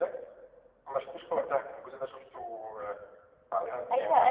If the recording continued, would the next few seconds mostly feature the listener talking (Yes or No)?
Yes